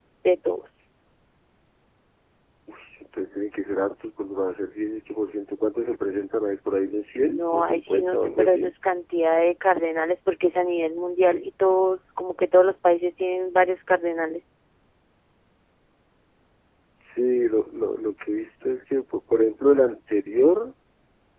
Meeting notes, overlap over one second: present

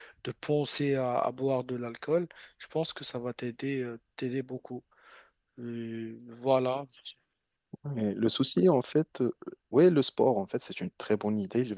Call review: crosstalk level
none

